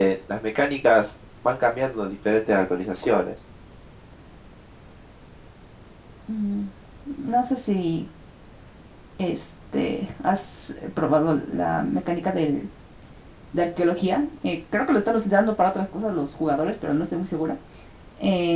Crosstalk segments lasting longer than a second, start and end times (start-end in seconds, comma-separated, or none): none